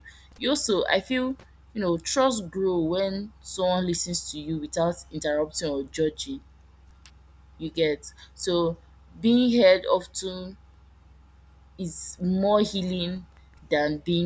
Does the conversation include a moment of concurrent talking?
No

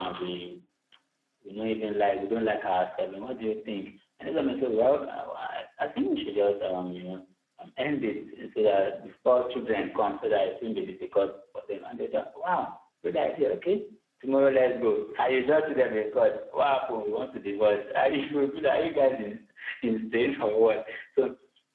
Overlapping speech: No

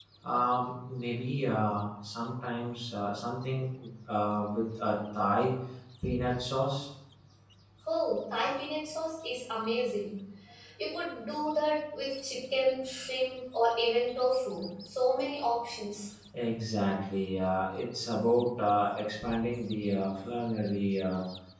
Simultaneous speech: No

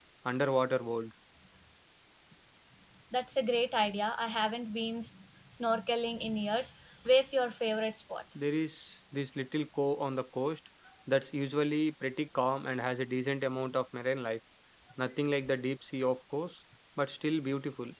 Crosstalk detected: No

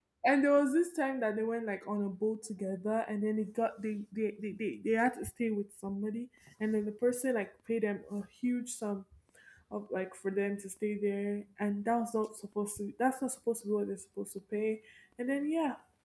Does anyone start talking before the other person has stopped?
No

